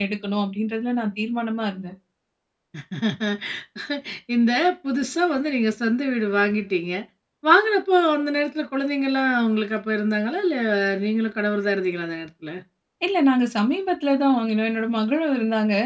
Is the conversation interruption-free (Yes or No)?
Yes